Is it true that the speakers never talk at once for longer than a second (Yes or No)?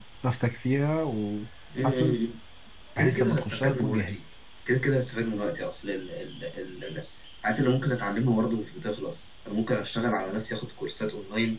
No